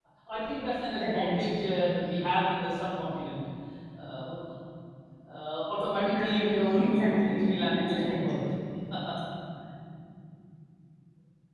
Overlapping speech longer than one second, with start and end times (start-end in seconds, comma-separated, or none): 5.9-8.3